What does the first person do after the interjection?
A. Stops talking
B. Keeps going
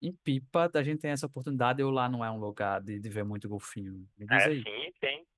A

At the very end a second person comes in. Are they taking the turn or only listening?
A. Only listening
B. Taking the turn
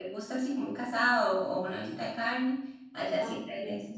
B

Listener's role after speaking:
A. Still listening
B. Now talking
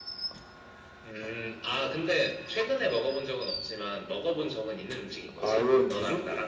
B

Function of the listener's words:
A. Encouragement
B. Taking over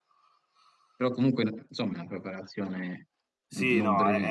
B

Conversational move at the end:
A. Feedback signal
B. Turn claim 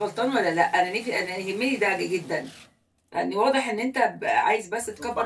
B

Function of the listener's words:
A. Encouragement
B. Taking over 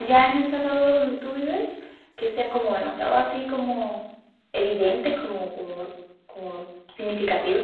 B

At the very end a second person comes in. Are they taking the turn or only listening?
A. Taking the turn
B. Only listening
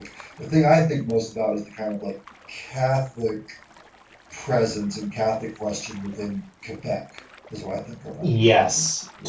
A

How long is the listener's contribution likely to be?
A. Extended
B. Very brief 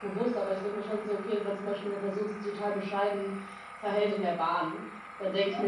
B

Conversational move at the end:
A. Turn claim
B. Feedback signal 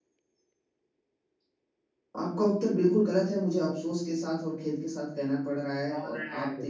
B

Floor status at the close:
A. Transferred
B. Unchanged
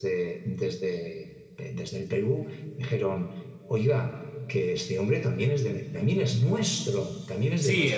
A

